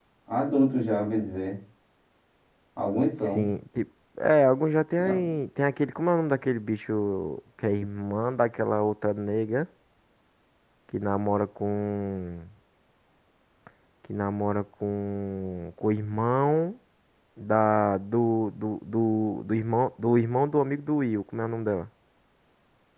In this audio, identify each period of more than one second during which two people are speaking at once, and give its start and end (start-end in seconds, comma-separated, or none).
none